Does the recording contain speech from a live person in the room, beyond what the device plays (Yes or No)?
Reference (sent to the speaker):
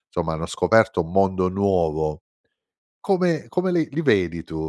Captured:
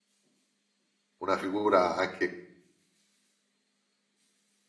Yes